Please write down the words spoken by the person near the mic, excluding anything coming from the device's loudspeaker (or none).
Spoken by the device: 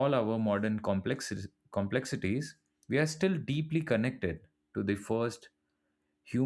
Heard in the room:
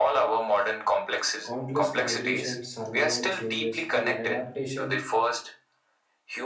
countless migration, survival changes, and the adaptation